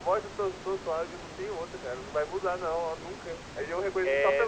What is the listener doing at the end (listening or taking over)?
listening